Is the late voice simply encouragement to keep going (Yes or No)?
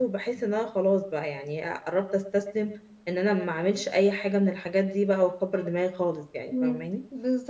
No